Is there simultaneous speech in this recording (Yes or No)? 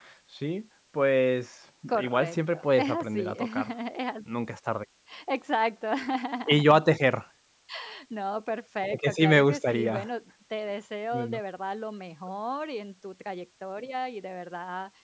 Yes